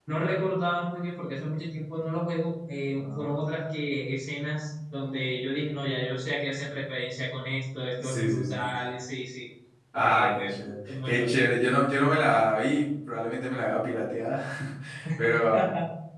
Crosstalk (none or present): present